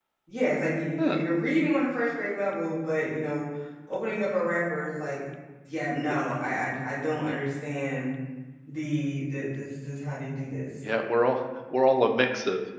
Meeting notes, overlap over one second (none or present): none